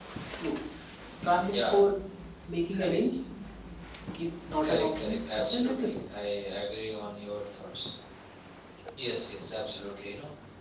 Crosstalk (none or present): present